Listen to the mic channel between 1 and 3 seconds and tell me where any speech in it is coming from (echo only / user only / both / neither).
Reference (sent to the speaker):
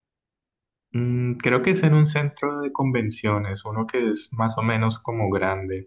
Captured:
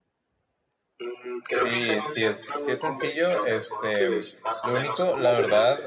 both